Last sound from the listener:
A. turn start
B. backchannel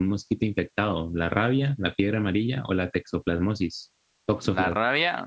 A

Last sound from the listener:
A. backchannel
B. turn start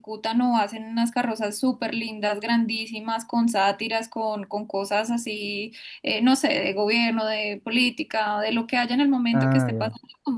A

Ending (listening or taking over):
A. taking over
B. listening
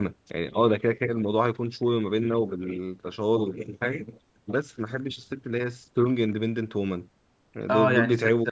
A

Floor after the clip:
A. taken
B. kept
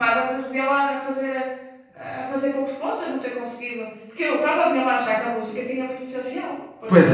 A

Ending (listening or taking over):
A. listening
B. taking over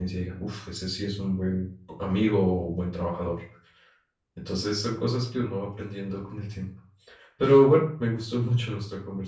A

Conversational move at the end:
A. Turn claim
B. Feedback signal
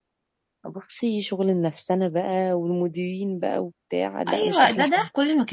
A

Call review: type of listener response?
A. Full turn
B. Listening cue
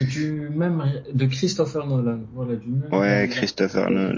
A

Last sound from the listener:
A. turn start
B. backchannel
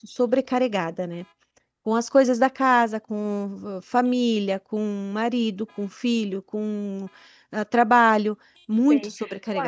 A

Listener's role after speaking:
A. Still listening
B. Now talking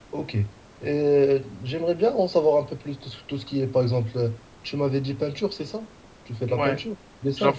B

